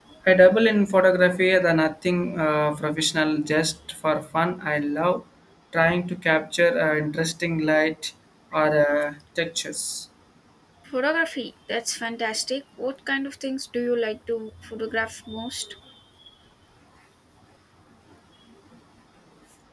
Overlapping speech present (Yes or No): No